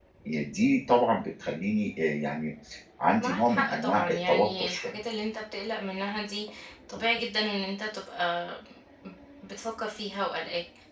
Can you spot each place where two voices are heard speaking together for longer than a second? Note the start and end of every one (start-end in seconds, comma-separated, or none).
3.2-5.0